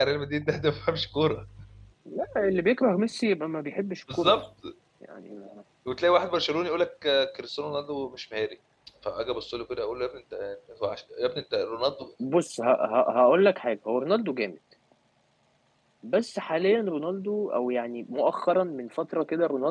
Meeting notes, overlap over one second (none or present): none